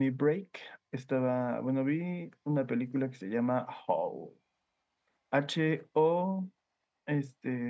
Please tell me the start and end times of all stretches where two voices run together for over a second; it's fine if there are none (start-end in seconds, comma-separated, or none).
none